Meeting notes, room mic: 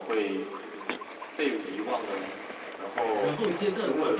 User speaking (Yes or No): Yes